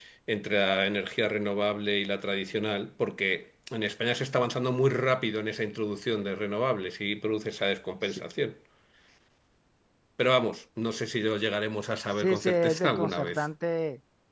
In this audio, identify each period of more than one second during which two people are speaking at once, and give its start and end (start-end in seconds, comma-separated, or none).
12.1-13.4